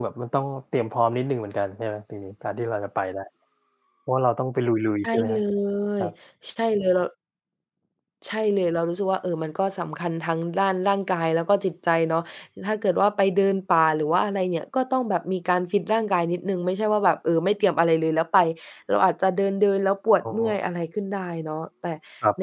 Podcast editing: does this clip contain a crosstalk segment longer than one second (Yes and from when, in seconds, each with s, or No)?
No